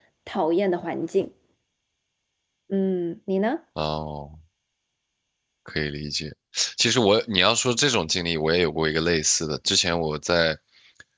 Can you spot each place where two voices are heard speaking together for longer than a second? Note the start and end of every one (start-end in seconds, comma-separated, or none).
none